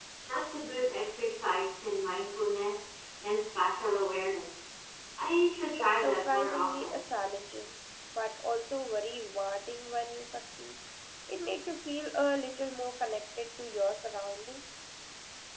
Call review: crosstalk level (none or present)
present